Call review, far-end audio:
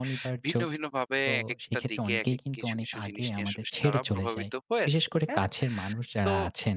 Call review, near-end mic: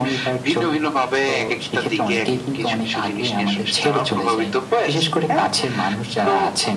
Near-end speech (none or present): none